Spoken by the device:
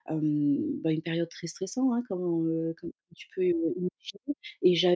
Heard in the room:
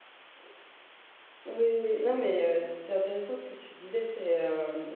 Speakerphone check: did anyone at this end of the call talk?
Yes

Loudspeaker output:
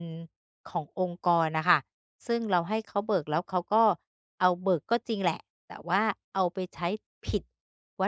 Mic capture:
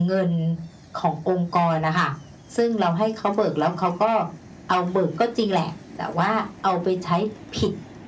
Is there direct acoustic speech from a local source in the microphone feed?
No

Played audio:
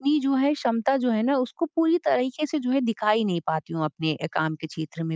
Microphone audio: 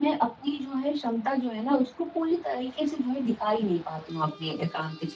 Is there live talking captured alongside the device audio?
No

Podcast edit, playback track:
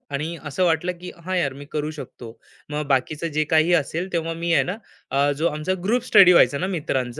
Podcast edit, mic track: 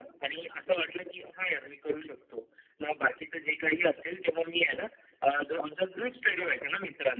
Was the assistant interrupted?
No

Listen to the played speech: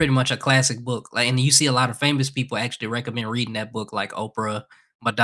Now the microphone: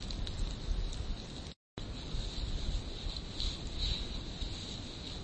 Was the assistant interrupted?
No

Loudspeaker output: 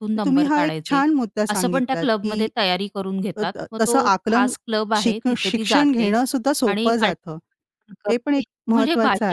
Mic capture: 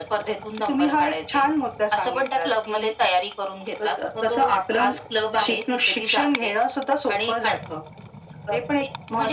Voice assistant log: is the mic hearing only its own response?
Yes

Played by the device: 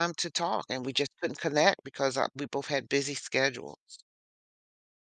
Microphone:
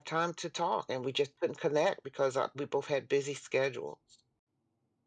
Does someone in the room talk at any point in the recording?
No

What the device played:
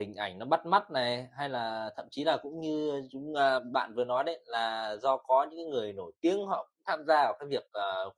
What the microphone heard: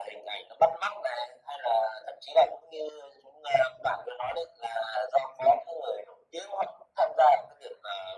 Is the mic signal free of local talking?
Yes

